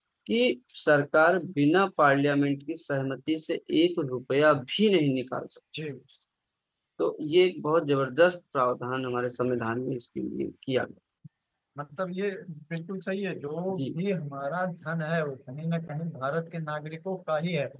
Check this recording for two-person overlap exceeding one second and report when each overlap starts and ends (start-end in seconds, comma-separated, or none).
none